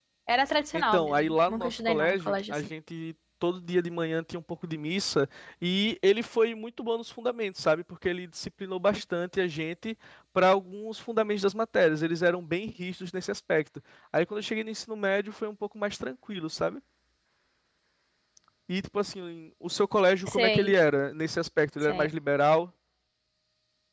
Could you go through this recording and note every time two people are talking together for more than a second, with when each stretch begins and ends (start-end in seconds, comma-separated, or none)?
0.7-2.6